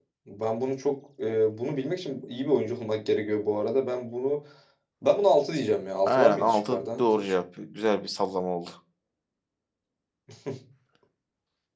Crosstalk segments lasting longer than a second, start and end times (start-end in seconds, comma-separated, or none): 6.1-7.3